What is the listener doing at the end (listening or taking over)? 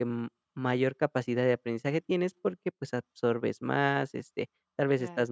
listening